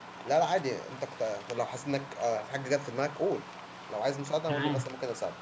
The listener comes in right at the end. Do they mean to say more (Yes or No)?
Yes